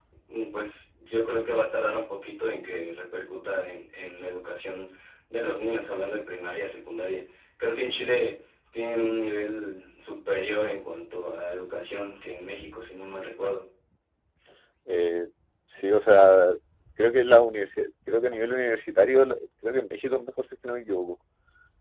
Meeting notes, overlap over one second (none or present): none